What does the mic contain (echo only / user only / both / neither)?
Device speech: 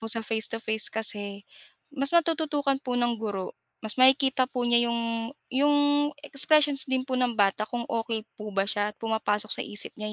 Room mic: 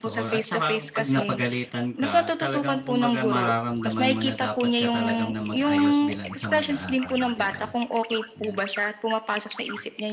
both